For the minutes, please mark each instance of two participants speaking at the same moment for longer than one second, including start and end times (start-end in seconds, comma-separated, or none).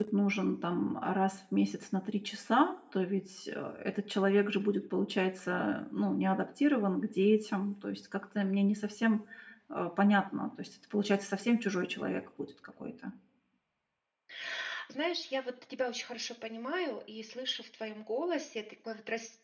none